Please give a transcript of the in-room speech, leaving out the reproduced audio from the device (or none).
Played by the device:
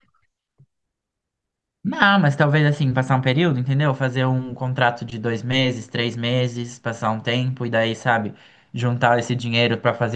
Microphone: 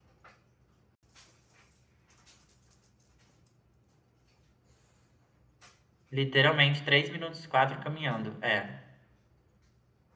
Literalmente, três minutos, quatro caminhando. É.